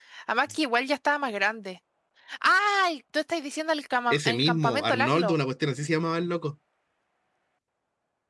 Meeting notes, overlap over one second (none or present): present